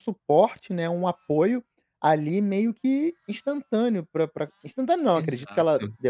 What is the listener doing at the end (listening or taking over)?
listening